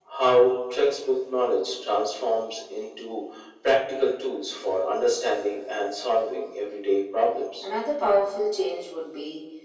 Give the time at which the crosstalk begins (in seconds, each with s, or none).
none